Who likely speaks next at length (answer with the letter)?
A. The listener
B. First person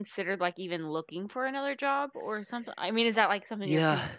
A